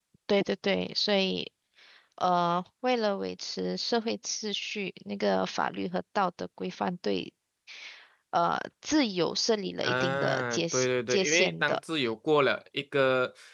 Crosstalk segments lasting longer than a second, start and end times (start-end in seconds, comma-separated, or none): 9.8-11.8